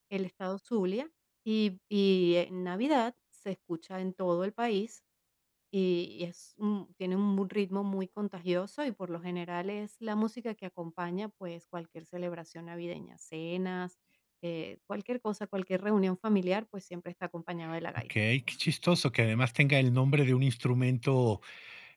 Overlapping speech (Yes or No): No